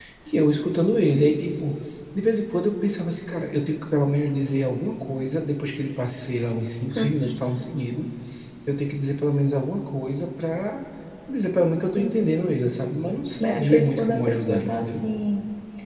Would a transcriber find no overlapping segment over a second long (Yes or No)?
No